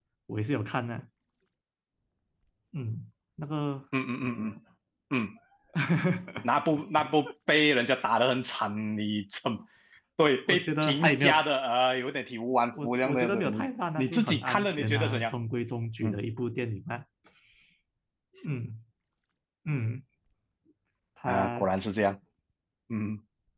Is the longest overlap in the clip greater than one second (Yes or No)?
Yes